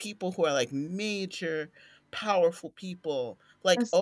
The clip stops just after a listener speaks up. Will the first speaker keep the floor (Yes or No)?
Yes